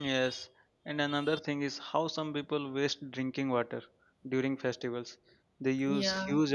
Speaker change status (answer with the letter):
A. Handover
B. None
B